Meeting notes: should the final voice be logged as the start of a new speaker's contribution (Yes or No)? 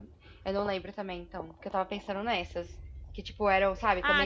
Yes